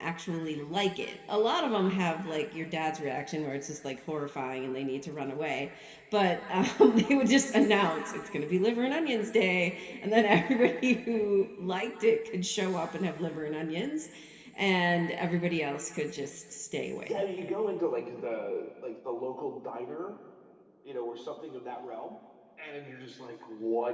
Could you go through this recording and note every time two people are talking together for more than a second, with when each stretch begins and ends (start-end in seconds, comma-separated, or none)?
none